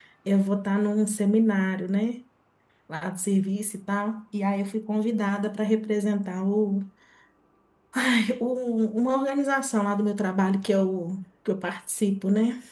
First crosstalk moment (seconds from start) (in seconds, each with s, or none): none